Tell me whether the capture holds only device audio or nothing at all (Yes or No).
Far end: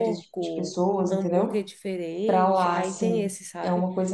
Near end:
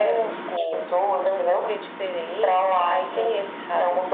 Yes